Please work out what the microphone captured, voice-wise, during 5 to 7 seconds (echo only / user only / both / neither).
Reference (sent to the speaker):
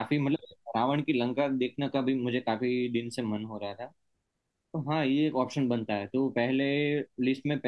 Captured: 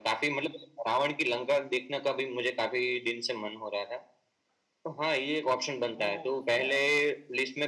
both